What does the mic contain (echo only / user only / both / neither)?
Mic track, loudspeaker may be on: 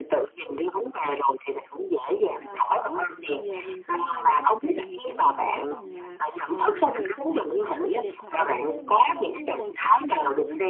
both